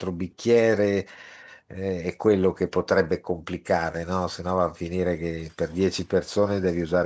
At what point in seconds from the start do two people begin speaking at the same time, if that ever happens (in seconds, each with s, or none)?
none